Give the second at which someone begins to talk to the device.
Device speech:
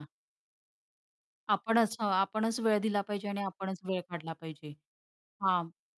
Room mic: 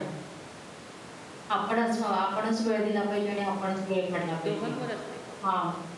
4.4 s

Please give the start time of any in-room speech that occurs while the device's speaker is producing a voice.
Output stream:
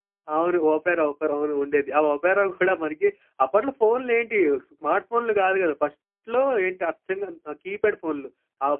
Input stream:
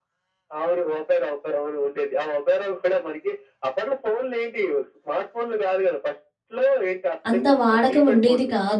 7.3 s

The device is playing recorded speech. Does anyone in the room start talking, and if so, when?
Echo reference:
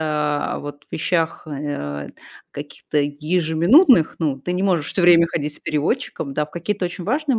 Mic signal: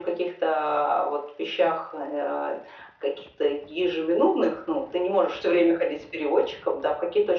none

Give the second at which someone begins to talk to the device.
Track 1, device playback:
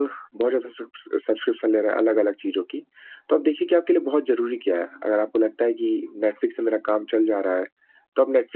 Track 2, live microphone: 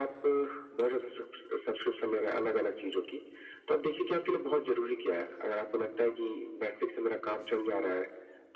none

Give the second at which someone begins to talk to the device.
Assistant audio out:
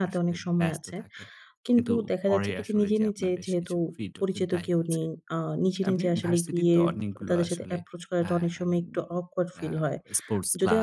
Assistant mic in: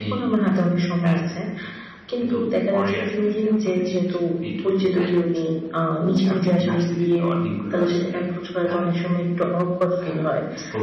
none

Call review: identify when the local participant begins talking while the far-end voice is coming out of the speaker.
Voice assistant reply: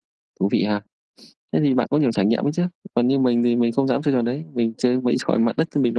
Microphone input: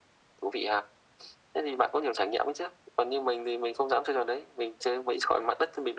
none

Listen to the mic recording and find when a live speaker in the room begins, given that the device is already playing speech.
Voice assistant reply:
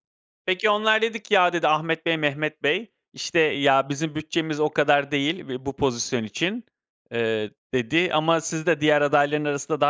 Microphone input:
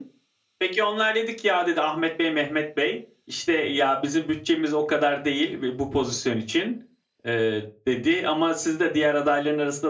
none

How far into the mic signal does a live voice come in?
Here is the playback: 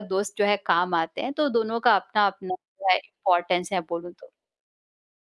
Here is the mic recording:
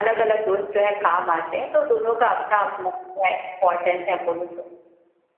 none

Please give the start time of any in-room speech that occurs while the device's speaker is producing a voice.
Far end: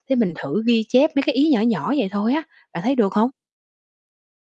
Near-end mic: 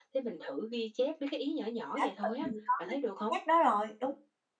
1.8 s

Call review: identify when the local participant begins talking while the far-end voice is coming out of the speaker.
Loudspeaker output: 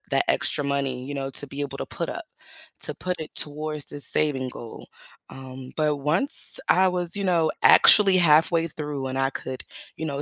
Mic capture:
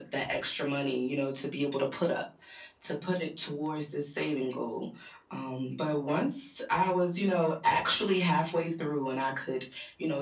none

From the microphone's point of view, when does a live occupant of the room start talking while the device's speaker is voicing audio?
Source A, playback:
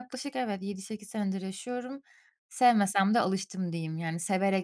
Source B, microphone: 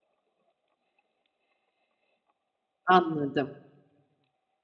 2.9 s

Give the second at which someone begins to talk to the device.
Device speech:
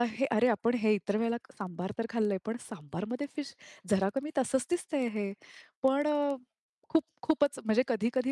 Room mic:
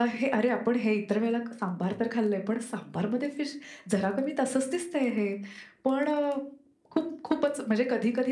none

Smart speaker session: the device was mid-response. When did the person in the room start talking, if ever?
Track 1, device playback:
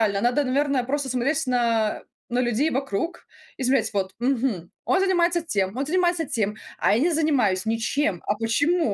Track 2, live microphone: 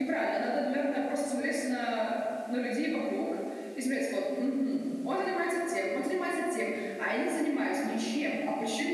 none

